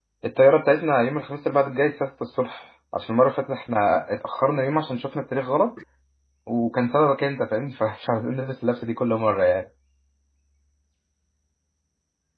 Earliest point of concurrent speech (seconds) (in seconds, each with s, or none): none